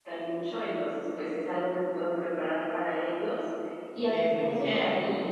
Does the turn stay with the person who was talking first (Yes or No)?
Yes